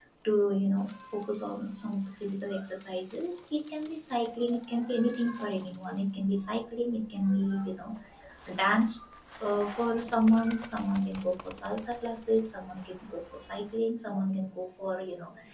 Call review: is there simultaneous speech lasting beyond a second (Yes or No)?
No